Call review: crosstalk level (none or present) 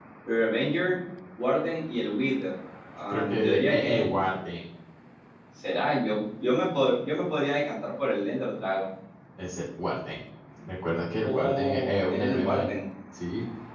present